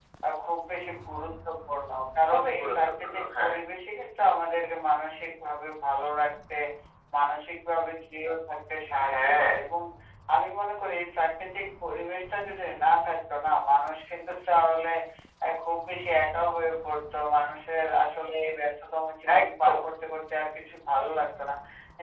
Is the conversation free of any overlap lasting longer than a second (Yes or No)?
No